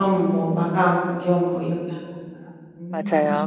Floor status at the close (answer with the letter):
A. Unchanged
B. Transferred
B